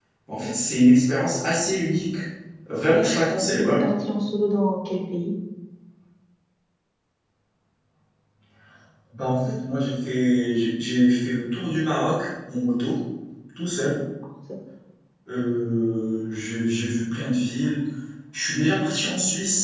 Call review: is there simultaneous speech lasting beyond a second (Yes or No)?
No